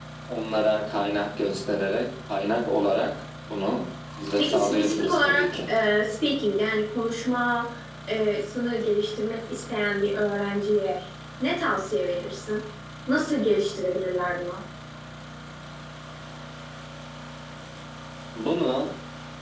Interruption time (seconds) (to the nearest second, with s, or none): 4 s